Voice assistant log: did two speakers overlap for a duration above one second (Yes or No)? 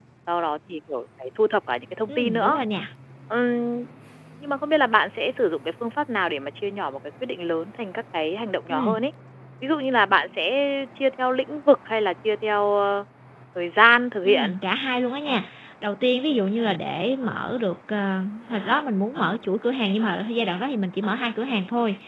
No